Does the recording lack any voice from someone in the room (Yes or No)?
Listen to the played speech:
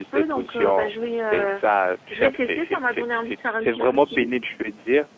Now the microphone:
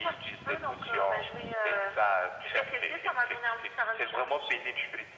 Yes